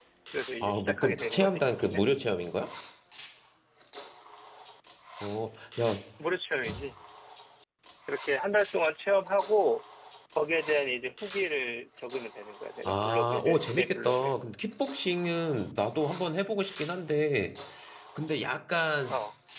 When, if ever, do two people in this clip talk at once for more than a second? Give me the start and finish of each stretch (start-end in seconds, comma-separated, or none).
0.6-2.0, 12.8-14.3